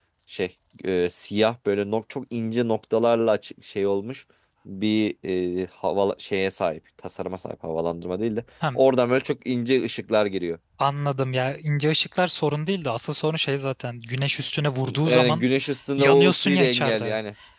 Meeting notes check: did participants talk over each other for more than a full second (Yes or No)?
Yes